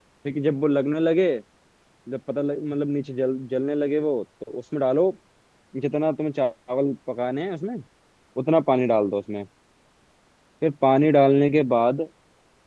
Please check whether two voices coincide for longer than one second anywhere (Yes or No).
No